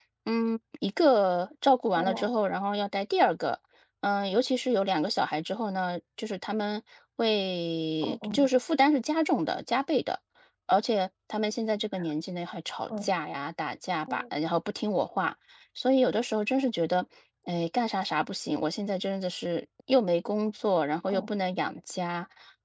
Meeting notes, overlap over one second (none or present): none